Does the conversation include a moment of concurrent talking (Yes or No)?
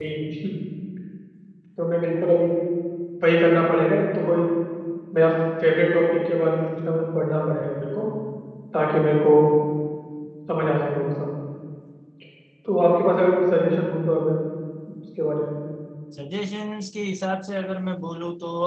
No